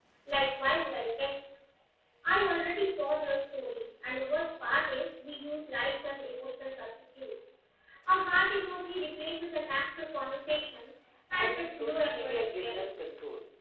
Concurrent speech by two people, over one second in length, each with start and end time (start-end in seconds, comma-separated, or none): 11.3-12.9